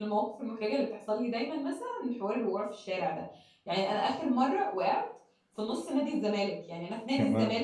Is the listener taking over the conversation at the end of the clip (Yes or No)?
No